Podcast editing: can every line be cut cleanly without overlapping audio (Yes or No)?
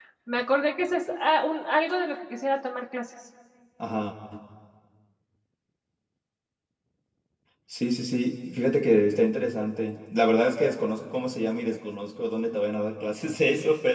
Yes